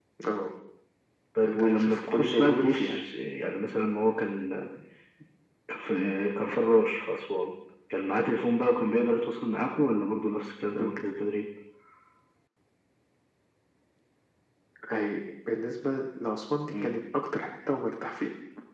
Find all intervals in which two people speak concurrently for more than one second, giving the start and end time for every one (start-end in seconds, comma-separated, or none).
1.4-3.0